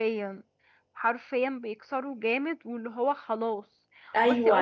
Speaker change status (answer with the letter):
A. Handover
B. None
A